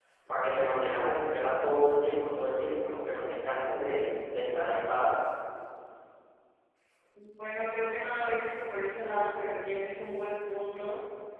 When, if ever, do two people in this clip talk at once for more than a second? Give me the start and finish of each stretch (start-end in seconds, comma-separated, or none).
none